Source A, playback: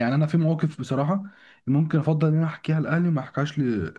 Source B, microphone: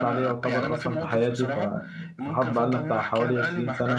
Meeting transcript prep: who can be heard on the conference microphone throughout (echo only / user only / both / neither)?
both